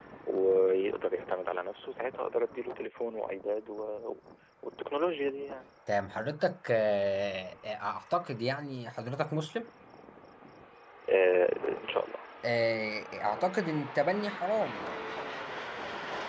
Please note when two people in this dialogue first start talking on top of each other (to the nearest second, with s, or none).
none